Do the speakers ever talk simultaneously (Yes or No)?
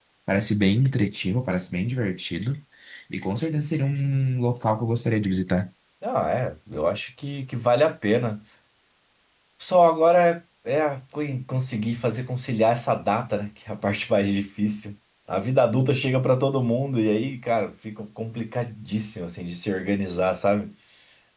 No